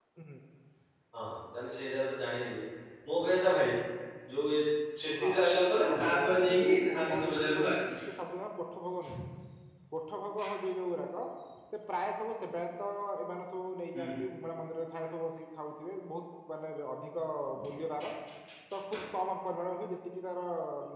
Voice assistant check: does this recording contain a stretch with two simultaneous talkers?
Yes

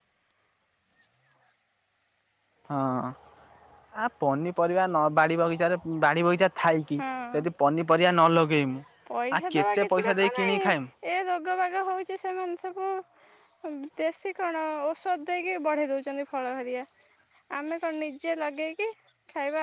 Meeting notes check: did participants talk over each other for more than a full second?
Yes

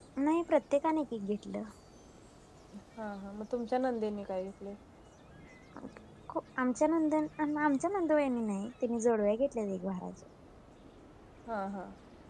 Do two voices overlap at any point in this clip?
No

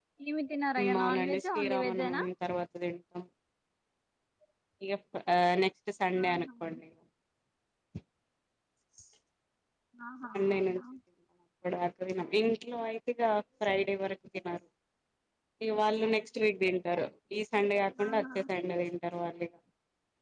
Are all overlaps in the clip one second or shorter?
No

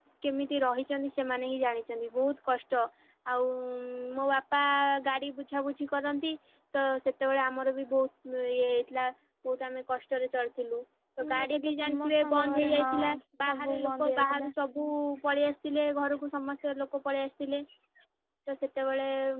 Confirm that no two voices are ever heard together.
No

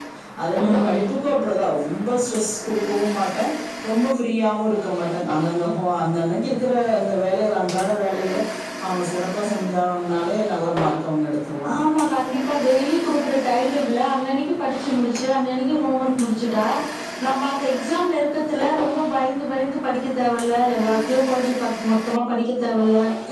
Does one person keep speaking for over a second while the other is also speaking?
No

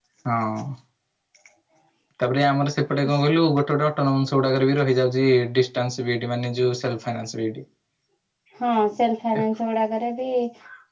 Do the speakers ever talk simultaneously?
No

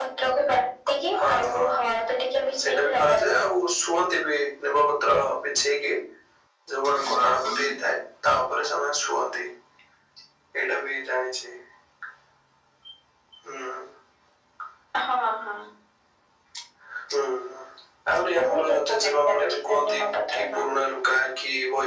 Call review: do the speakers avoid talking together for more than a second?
No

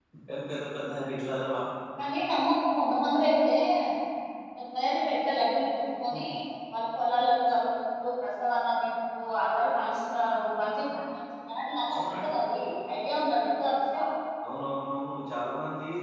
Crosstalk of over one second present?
No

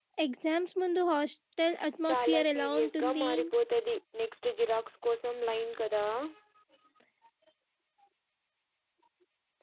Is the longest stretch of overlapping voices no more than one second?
No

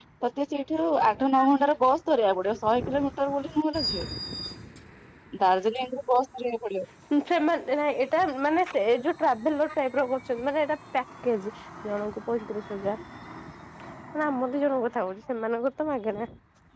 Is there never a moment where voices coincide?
Yes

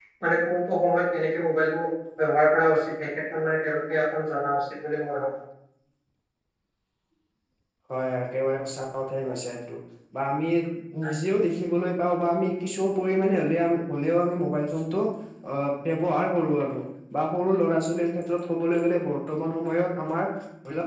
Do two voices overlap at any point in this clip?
No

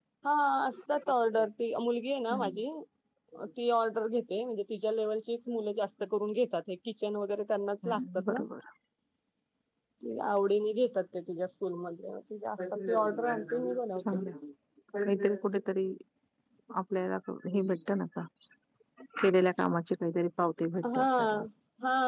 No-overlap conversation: No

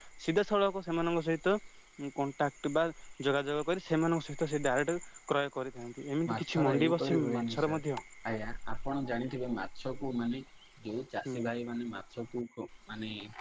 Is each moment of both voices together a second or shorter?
No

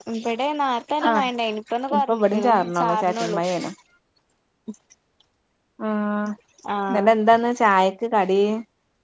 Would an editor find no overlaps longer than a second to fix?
No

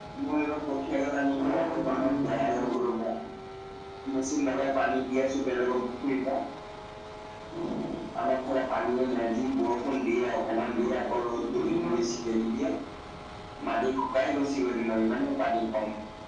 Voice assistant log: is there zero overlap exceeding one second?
No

